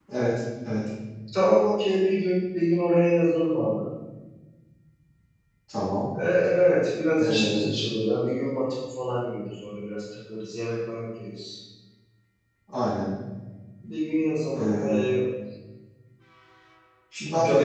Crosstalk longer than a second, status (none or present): none